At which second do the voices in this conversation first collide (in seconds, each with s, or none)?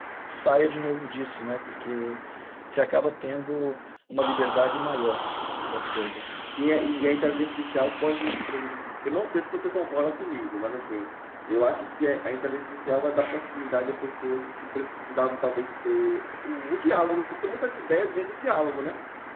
none